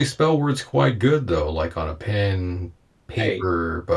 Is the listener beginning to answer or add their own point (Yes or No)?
No